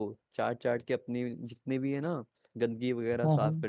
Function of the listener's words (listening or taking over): listening